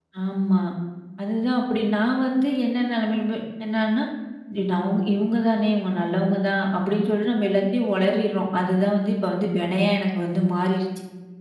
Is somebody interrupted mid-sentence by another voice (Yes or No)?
No